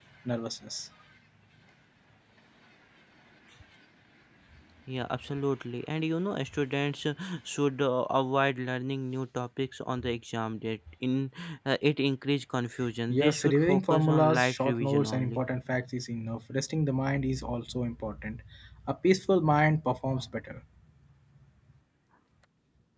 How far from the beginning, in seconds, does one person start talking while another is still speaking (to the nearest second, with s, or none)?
13 s